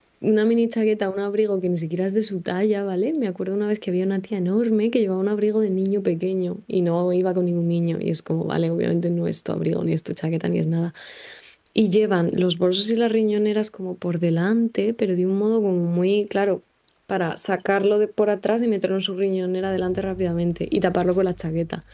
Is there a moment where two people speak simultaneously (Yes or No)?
No